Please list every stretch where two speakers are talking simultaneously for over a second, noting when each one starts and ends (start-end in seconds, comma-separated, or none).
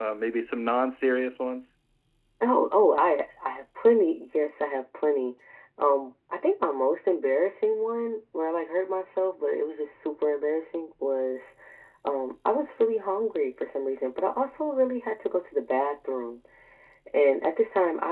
none